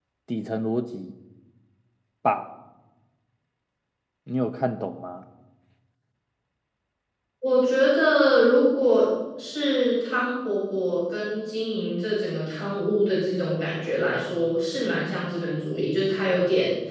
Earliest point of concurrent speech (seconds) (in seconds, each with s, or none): none